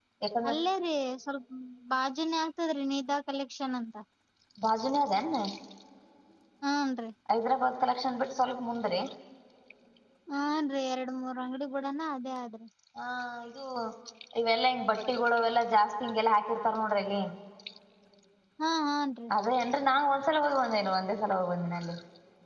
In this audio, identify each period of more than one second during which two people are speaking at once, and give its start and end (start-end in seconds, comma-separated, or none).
none